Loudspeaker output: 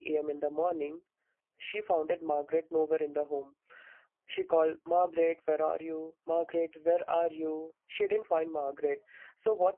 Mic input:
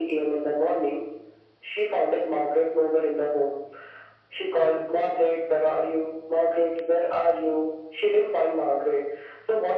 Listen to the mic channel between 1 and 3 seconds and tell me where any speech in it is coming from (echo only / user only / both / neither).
echo only